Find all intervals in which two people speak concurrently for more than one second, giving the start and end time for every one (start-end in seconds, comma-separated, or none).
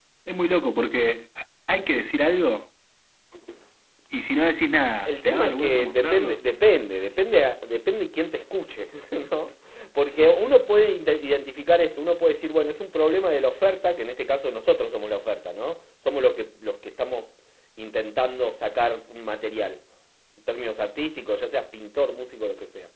5.0-6.4